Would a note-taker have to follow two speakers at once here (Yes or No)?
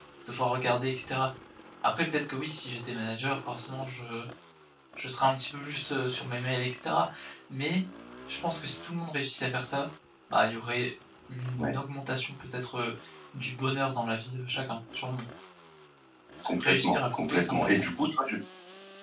Yes